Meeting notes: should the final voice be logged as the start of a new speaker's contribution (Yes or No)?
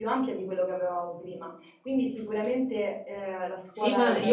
Yes